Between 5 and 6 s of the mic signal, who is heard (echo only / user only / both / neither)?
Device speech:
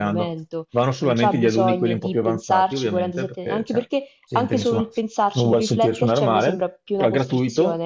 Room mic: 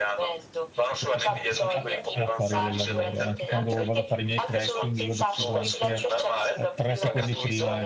both